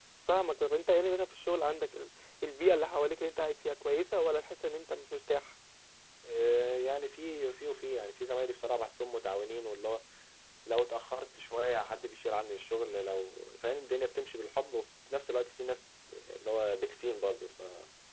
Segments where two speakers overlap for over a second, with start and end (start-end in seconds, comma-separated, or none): none